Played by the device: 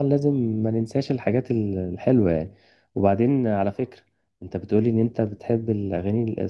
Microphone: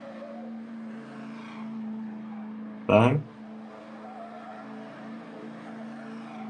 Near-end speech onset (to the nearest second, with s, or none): 3 s